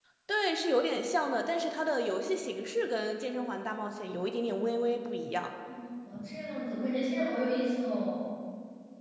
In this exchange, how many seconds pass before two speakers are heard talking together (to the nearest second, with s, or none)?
none